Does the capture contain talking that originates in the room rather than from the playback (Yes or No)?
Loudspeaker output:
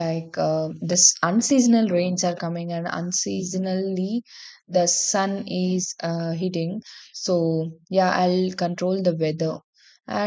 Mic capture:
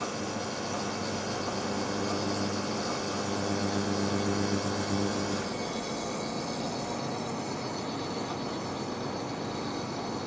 No